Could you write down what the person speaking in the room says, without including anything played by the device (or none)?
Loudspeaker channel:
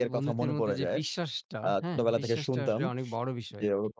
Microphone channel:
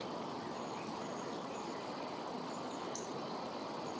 none